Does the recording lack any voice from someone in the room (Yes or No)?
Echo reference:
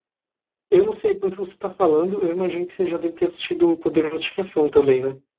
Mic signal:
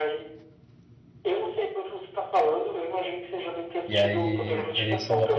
No